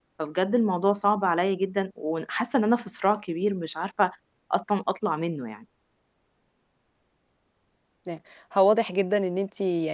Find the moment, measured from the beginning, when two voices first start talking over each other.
none

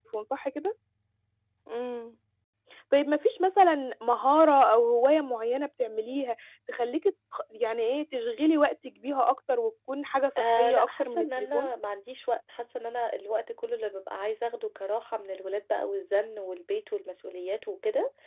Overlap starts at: 10.4 s

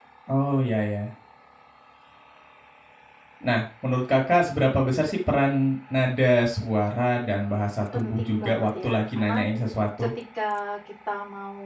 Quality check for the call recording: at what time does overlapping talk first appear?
7.9 s

